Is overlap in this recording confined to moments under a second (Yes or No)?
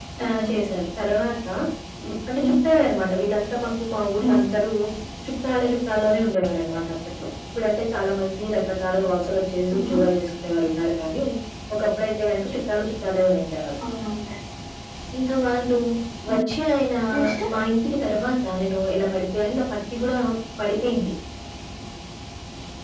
Yes